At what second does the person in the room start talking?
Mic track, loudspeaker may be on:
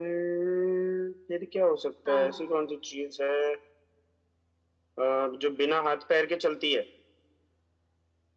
2.1 s

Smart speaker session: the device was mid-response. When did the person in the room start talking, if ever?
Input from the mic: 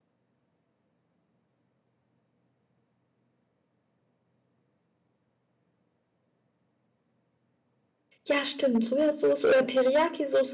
8.3 s

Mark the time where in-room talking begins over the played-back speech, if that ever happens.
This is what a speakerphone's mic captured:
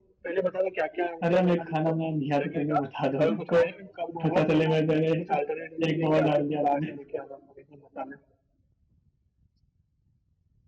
1.2 s

